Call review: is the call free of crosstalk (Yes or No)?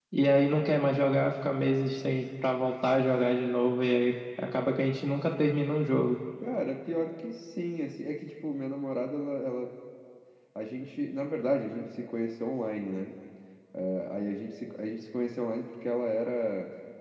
Yes